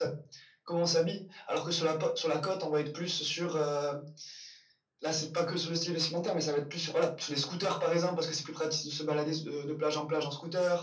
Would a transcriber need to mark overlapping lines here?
No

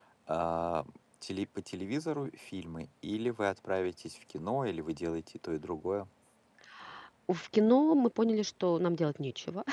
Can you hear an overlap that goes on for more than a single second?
No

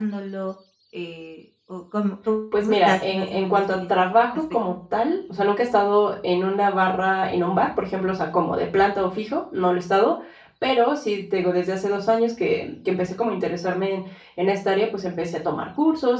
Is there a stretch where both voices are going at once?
Yes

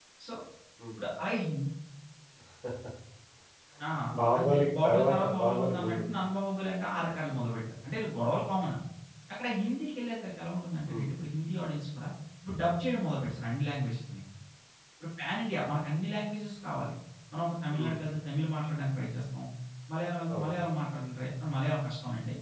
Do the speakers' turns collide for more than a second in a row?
Yes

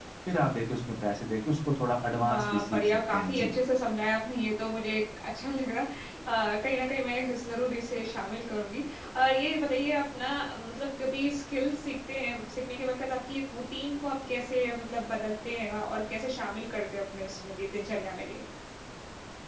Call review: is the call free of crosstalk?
No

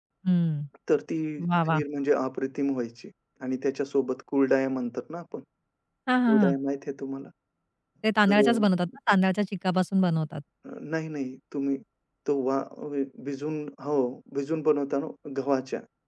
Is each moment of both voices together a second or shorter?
Yes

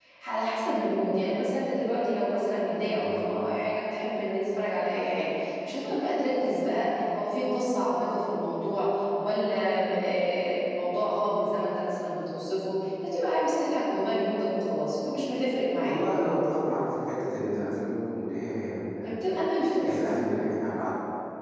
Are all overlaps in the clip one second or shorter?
Yes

